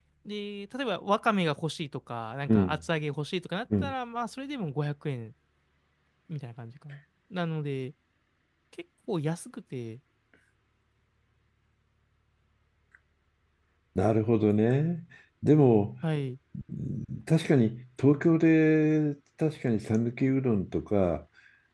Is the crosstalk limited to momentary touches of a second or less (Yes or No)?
Yes